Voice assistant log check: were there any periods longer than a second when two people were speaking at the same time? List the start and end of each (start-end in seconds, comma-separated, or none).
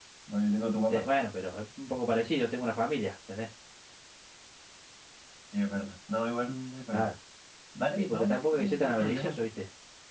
8.0-9.4